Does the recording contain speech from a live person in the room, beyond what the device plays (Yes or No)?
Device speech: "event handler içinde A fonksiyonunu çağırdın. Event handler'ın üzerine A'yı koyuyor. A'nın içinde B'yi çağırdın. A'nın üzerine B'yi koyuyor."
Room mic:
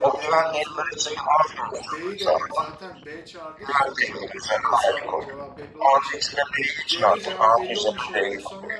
Yes